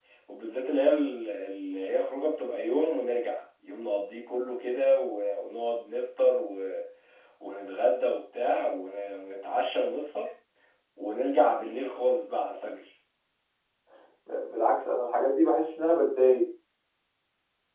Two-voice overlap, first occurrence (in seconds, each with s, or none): none